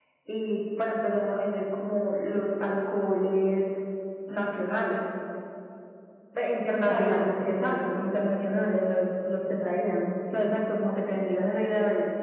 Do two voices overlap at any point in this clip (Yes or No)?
Yes